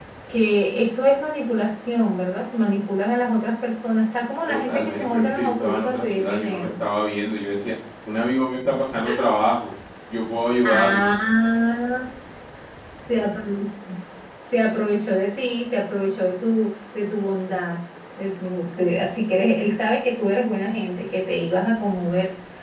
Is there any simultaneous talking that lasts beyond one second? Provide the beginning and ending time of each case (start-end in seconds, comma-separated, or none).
4.5-6.7